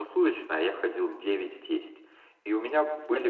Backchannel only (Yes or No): Yes